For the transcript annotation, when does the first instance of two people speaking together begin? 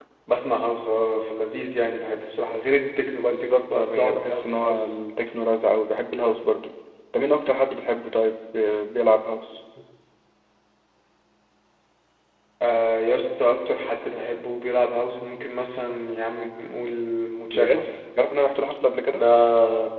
3 s

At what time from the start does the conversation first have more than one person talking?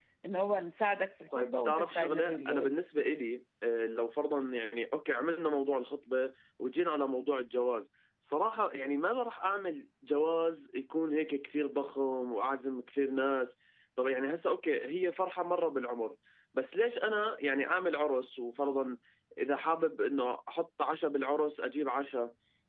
1 s

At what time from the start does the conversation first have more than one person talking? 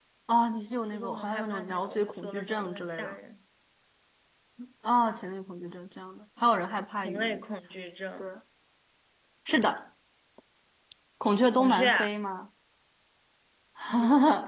1 s

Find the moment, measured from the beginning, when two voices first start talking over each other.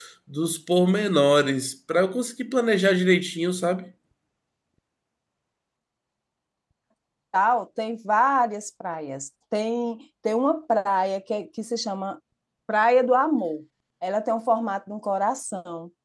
none

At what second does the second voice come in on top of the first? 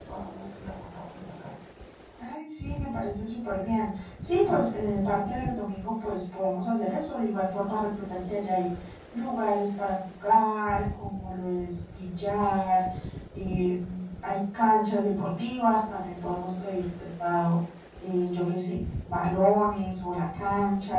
none

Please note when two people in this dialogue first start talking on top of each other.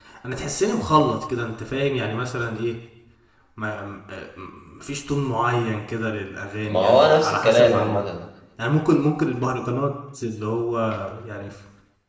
7 s

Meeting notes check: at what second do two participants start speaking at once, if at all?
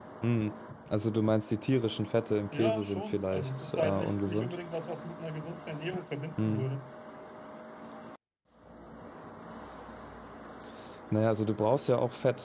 3 s

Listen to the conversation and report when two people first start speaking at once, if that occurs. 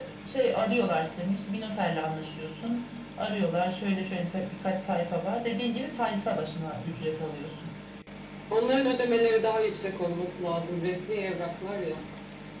none

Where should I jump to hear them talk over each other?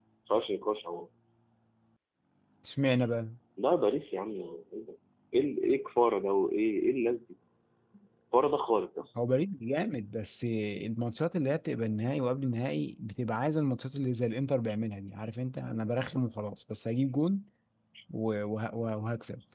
none

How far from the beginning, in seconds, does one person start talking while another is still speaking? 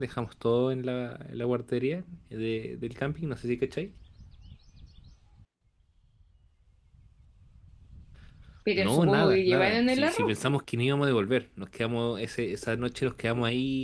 9 s

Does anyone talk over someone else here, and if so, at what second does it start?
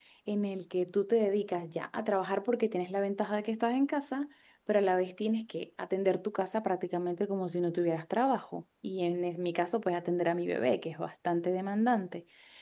none

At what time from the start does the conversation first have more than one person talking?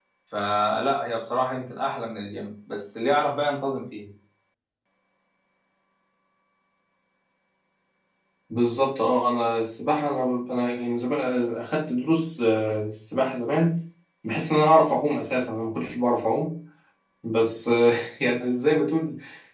none

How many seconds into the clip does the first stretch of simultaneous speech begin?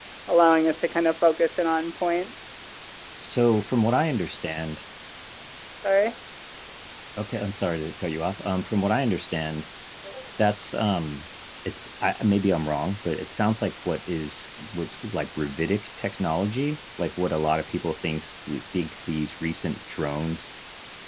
none

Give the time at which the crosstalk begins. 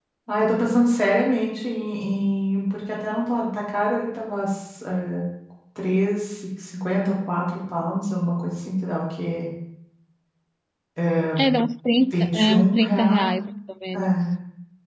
12 s

